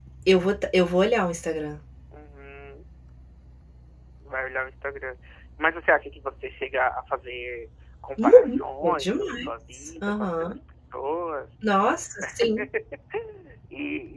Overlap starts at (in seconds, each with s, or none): 8.2 s